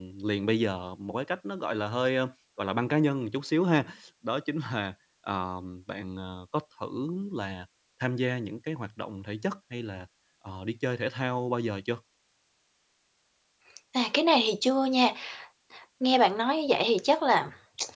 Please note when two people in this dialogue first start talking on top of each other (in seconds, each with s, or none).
none